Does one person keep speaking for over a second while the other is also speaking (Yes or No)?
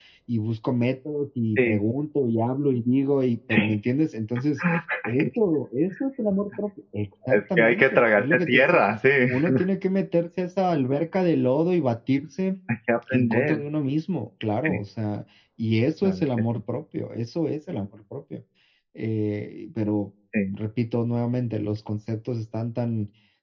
Yes